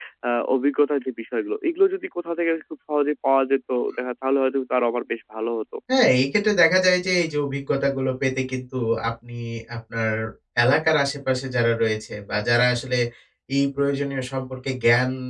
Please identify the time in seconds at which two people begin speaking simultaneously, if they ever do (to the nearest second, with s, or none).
none